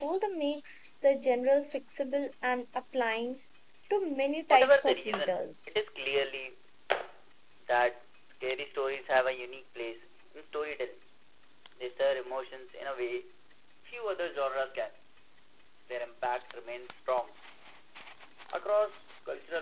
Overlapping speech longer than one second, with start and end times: 4.5-5.7

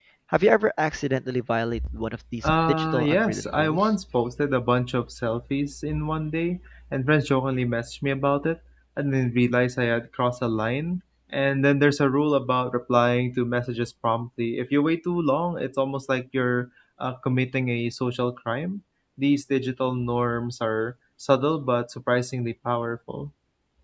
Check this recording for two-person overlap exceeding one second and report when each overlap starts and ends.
2.4-3.9

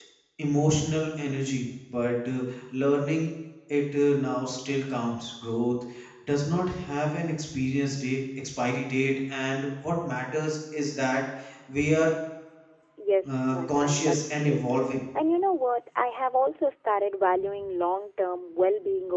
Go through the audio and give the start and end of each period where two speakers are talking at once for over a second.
13.2-14.6

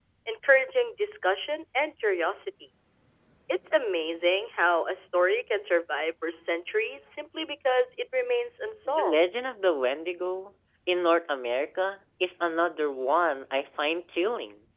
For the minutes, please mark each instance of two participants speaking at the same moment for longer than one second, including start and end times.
none

